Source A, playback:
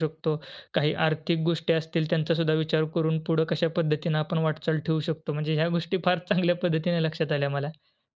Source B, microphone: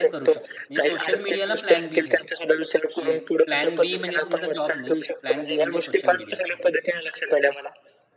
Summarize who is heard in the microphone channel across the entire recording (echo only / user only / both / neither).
both